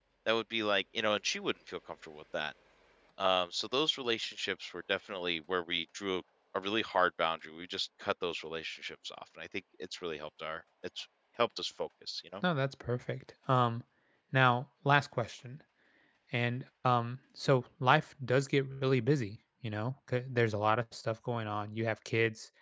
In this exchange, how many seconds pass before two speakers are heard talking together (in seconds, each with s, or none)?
none